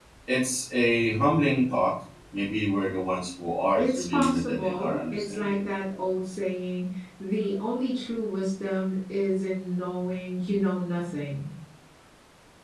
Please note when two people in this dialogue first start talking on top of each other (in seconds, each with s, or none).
3.8 s